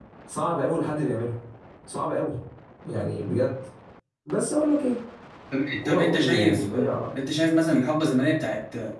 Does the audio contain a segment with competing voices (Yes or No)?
Yes